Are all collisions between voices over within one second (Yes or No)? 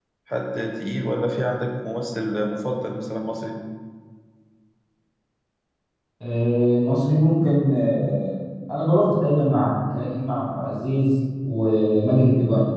Yes